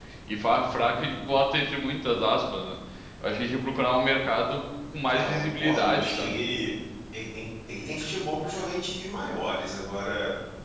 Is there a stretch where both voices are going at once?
Yes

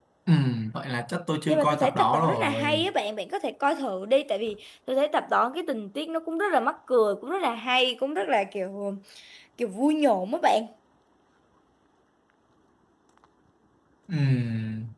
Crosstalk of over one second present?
Yes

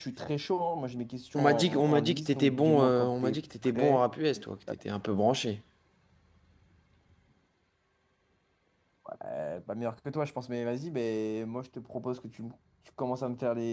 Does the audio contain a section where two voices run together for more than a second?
Yes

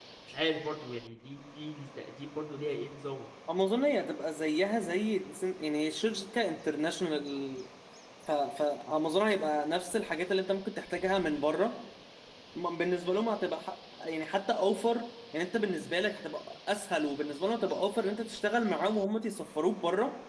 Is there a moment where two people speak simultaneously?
No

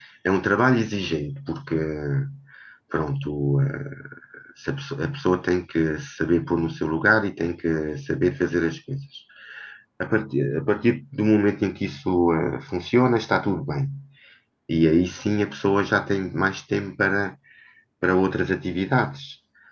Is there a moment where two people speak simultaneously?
No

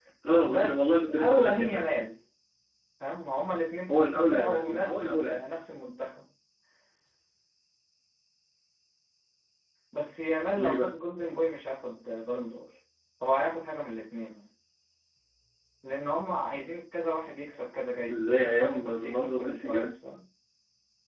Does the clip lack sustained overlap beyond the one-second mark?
No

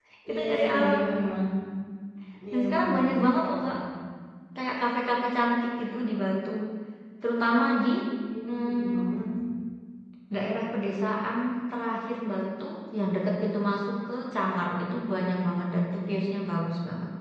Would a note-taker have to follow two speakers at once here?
Yes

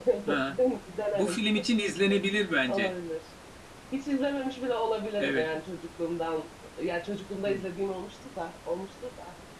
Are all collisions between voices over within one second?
Yes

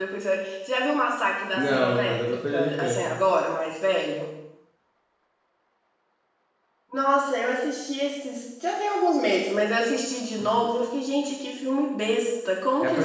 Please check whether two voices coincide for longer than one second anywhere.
Yes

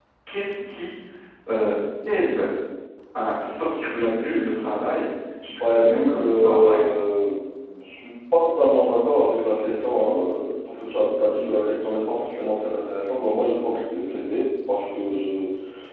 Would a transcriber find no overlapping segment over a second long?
No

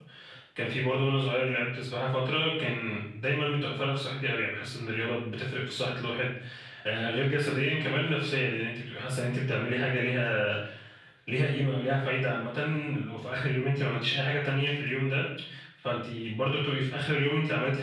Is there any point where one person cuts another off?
No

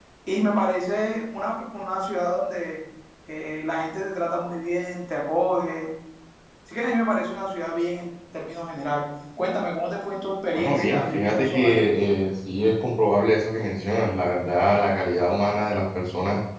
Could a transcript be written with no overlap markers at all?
No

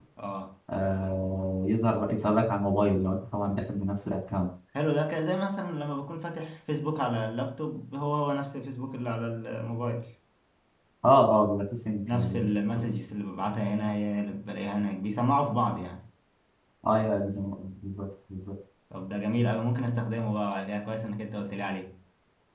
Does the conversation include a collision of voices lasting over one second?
No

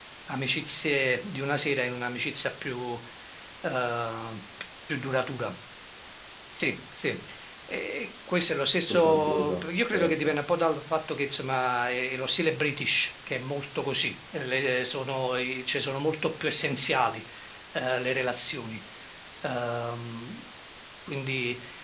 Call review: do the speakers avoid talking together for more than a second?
No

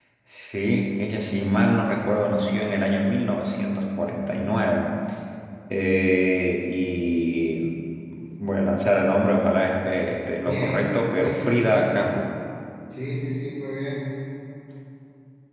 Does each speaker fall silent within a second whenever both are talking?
No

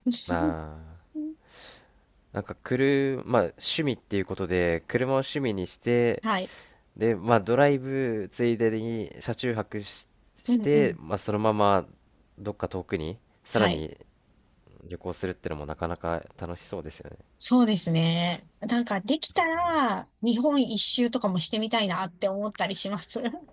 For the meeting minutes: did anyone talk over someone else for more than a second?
No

